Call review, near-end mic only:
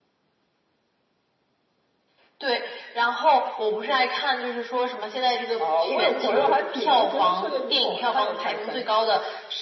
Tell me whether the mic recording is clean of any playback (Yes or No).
No